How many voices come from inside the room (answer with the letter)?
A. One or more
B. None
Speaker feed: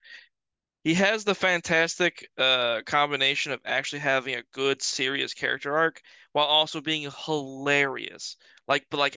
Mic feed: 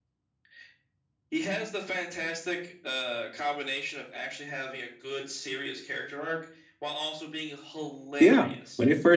A